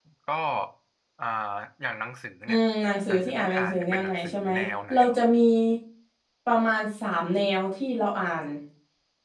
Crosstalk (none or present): present